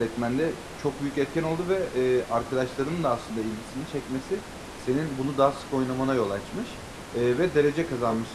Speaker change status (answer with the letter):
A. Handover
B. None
B